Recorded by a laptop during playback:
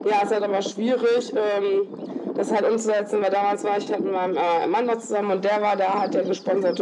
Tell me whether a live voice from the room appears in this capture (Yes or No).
No